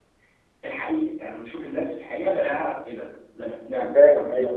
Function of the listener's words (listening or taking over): listening